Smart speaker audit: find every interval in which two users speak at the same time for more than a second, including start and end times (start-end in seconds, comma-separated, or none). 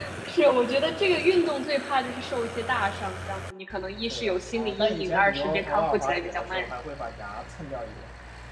4.1-6.7